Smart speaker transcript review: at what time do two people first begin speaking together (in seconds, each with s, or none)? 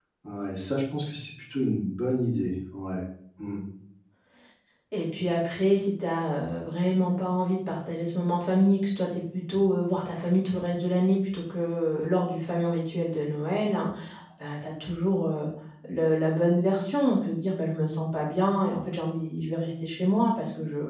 none